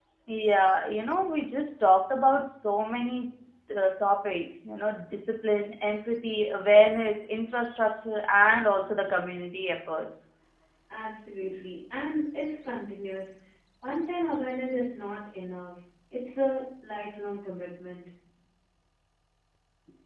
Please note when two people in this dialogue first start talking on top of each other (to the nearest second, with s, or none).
none